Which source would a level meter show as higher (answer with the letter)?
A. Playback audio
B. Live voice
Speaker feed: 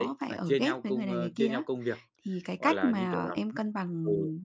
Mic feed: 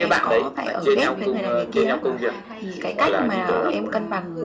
A